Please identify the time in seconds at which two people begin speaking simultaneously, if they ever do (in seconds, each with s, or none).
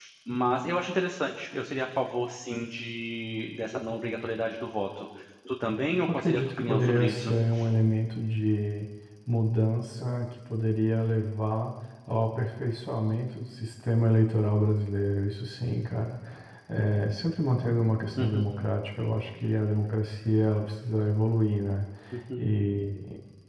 6.1 s